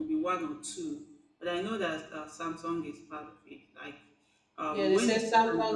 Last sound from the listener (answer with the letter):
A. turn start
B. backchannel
A